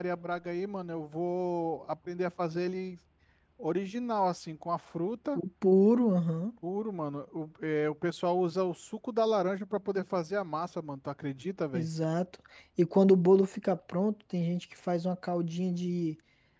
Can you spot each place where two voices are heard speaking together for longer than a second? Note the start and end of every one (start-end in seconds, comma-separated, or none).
none